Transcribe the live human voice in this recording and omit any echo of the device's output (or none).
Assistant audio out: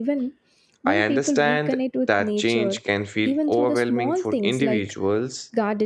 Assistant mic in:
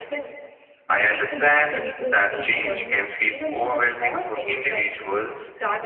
We are encouraged to buy more,